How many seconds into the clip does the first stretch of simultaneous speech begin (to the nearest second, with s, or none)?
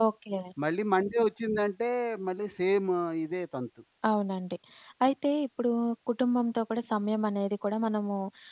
none